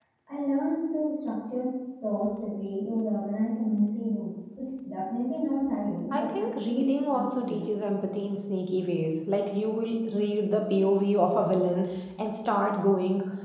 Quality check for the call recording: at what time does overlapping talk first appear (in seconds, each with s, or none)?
6.1 s